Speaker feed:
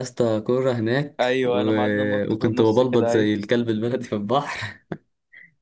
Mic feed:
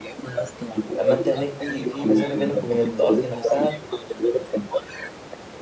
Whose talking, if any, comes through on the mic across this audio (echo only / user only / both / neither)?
both